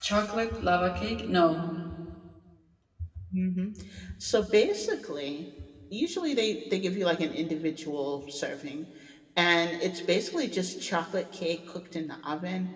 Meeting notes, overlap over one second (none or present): none